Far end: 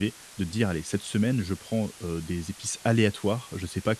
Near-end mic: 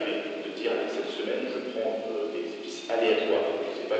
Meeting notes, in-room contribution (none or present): none